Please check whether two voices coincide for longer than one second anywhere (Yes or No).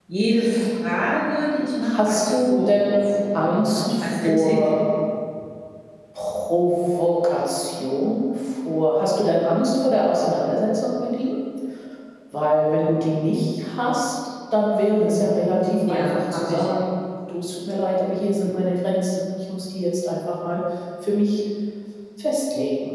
Yes